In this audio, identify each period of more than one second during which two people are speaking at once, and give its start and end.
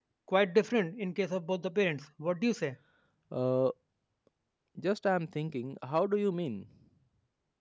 none

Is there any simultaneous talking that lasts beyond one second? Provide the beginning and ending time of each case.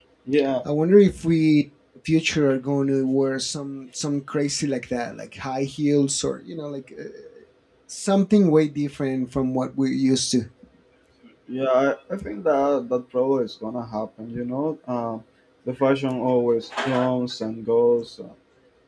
none

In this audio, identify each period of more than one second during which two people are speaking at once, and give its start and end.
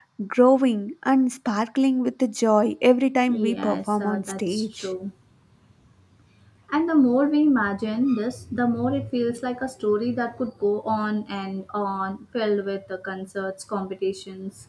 3.3-4.9

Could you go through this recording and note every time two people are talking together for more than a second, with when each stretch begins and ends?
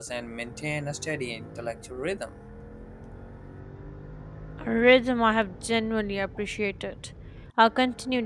none

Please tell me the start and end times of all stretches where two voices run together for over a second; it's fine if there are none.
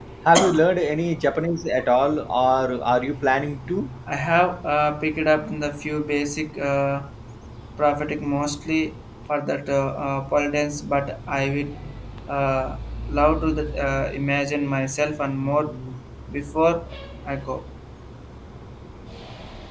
none

